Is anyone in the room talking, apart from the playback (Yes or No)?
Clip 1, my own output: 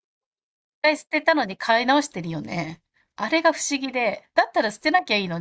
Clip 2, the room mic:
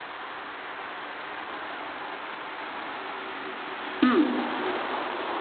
Yes